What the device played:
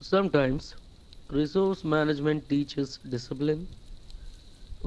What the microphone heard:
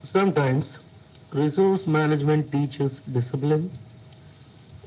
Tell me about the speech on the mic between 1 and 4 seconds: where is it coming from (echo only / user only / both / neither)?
echo only